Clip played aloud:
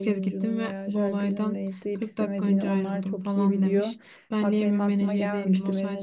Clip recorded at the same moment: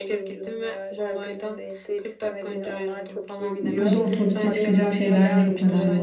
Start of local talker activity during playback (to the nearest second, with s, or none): 4 s